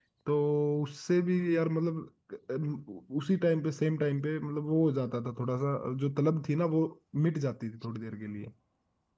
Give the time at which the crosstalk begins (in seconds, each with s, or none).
none